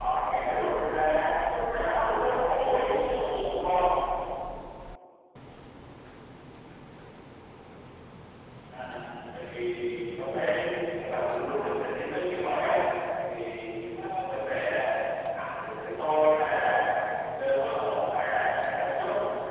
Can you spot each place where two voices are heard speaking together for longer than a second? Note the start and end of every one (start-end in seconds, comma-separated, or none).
1.7-2.9